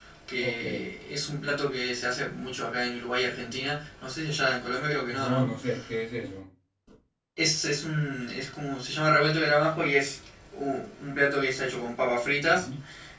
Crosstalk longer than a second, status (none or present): none